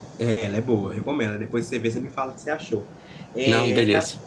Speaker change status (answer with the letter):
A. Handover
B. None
B